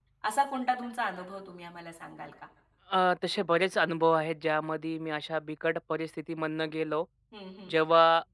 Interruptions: none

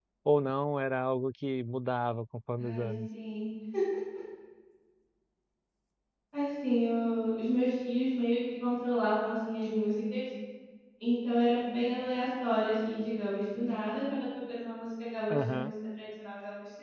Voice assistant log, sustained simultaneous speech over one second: none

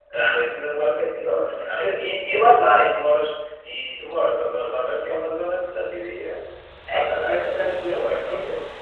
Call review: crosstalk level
present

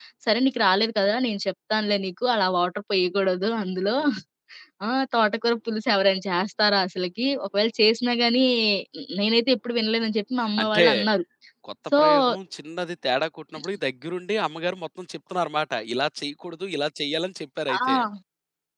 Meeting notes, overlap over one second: none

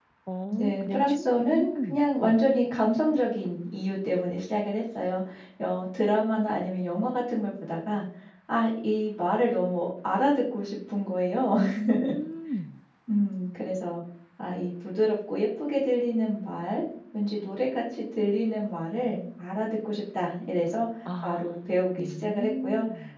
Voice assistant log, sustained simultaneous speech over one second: present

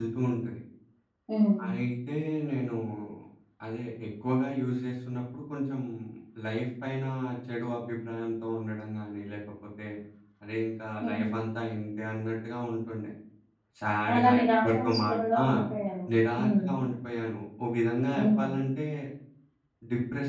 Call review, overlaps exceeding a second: present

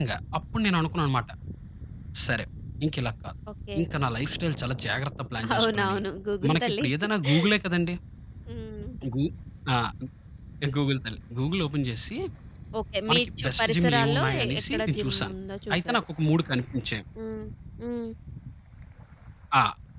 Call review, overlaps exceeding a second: present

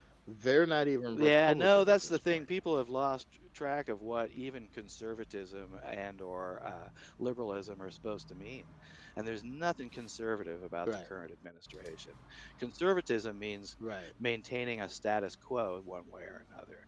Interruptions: present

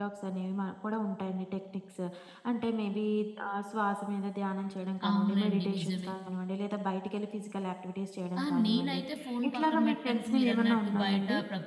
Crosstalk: present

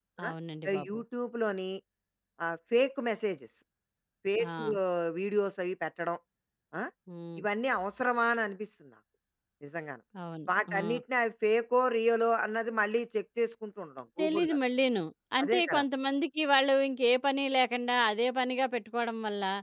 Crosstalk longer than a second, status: none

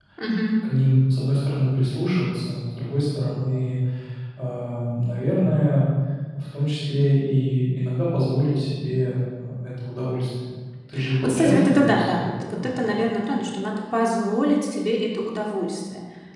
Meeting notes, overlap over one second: present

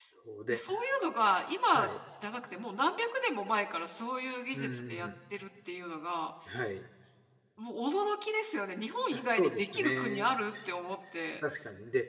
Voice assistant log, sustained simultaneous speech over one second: present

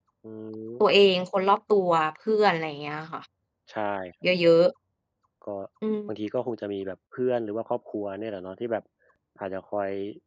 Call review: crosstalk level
none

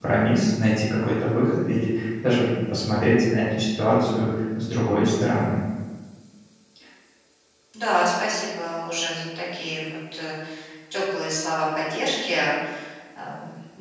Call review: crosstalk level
none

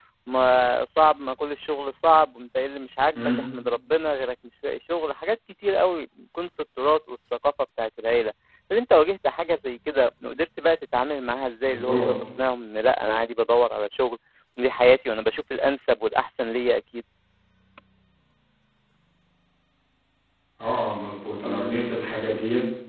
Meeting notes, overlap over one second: none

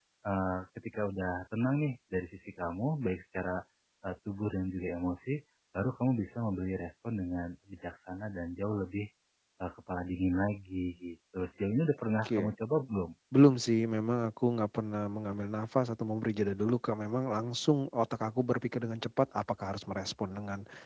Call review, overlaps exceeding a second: none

